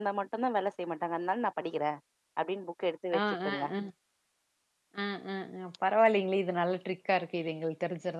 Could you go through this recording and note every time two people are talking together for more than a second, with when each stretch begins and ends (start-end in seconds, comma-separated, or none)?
none